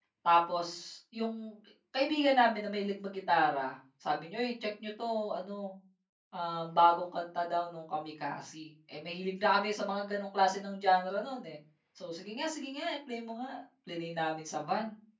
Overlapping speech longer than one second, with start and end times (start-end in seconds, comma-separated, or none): none